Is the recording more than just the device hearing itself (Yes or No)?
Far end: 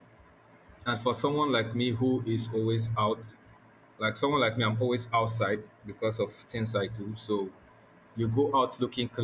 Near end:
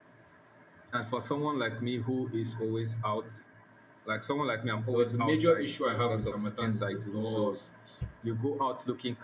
Yes